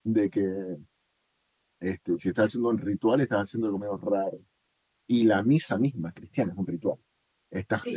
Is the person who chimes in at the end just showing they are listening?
Yes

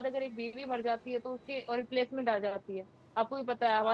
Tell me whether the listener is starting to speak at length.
Yes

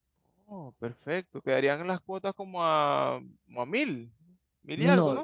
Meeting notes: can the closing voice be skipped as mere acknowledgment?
No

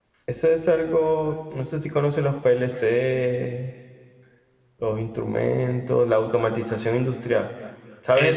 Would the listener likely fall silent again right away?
Yes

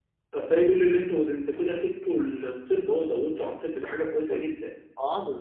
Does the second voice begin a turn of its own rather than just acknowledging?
Yes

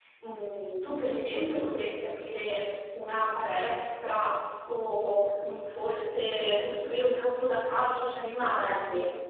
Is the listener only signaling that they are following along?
No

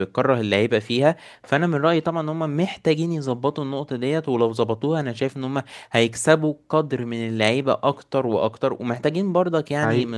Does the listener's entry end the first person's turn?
No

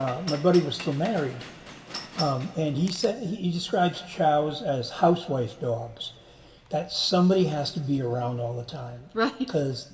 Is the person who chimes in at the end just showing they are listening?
Yes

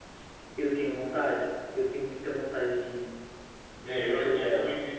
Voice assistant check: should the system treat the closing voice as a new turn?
Yes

